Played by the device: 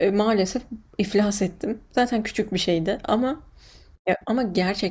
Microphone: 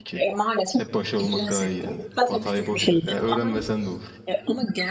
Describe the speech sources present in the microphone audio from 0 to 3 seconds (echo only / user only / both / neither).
both